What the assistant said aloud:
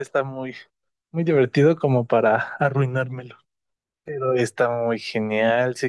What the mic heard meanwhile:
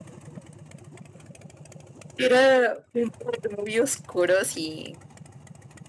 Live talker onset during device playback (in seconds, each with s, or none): 2.2 s